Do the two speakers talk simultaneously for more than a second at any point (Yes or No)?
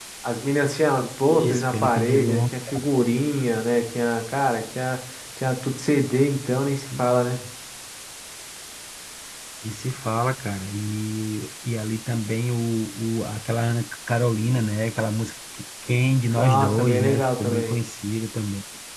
Yes